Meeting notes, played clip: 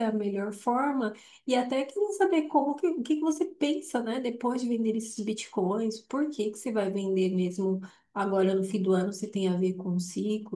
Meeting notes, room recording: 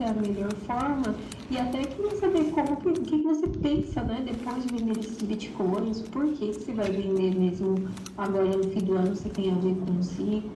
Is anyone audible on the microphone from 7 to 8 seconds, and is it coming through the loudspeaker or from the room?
echo only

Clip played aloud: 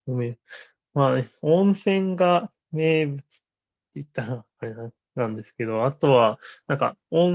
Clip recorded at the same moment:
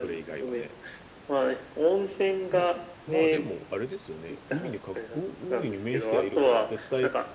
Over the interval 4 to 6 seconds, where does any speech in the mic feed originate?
both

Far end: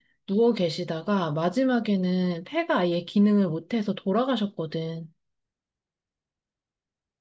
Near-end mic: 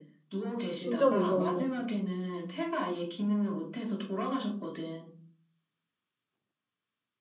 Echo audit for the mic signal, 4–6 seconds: echo only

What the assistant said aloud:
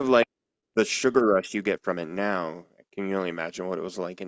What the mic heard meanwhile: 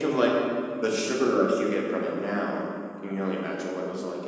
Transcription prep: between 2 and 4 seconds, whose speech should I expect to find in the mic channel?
echo only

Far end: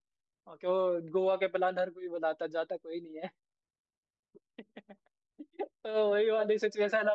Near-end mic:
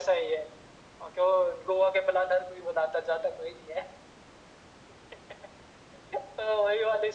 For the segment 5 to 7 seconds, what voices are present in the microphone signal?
echo only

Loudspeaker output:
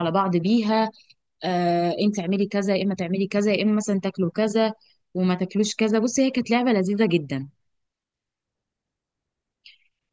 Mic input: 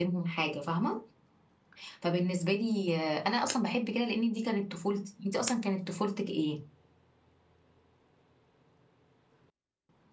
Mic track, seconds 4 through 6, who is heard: user only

